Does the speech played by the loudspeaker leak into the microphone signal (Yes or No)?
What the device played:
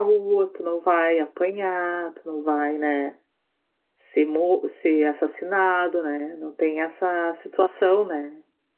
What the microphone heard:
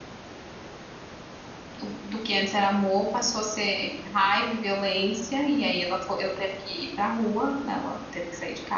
No